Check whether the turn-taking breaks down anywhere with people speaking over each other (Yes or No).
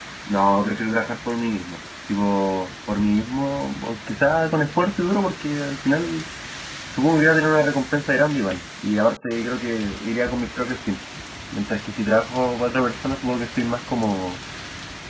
No